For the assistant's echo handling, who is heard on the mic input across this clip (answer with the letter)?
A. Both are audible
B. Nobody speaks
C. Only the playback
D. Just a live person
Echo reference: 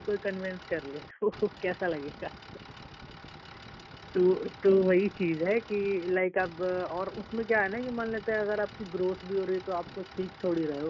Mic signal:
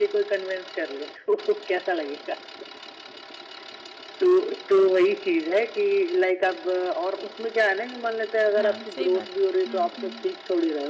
A